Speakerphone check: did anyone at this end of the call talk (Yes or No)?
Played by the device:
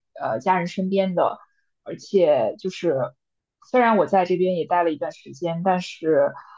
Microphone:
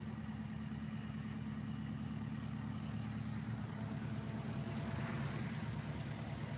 No